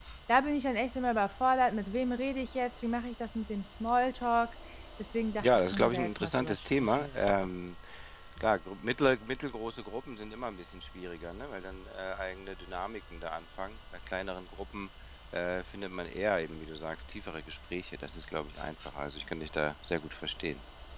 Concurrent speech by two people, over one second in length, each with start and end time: 5.4-7.1

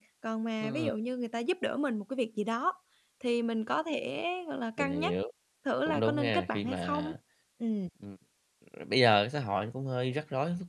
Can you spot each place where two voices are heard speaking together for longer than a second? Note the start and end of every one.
5.9-7.1

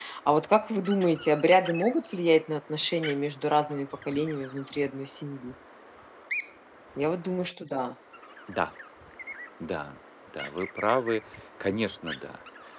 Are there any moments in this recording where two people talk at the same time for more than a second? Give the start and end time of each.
none

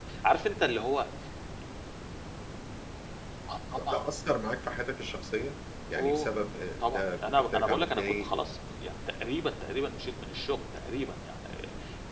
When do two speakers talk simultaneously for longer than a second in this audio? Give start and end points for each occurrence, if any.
6.8-8.4

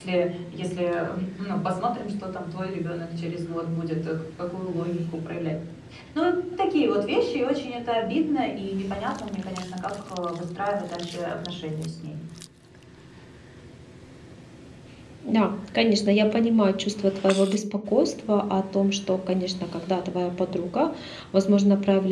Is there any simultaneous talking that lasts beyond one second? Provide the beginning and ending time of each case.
none

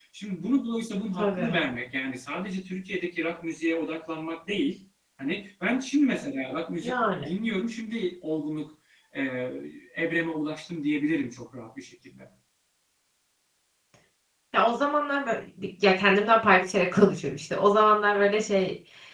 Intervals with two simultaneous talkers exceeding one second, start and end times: none

